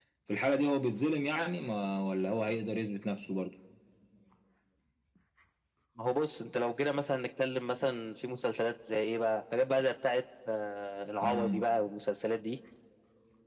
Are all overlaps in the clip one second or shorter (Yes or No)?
Yes